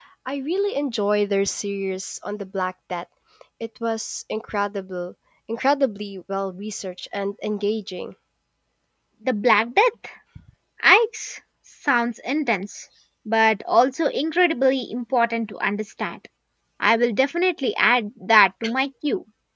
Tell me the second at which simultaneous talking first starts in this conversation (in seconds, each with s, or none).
none